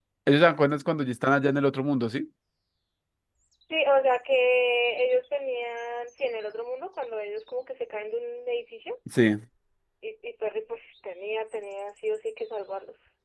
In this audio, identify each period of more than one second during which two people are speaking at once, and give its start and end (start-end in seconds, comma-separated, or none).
none